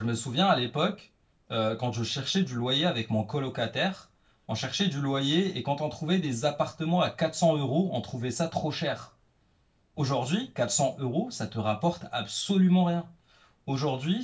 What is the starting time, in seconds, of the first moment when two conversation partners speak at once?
none

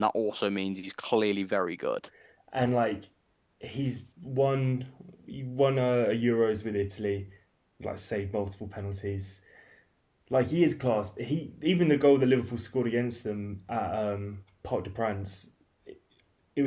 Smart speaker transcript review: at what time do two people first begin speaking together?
none

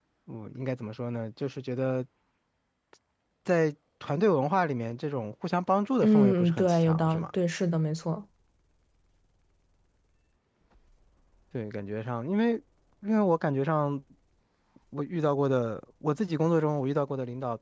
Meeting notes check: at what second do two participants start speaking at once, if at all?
6.0 s

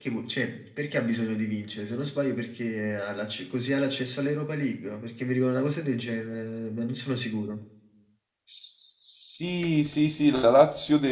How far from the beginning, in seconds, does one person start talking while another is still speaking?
none

